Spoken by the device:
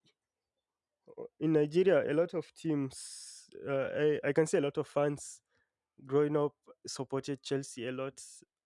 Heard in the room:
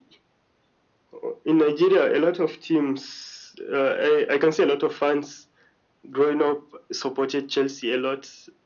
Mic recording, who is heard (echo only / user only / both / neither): echo only